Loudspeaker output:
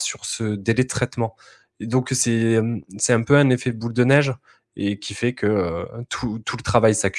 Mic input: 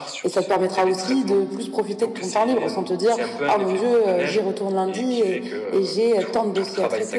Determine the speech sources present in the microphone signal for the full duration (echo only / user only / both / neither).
both